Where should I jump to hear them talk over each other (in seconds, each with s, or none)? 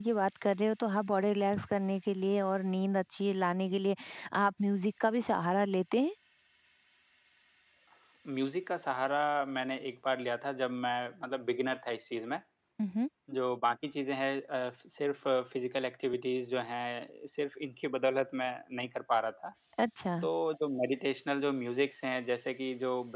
none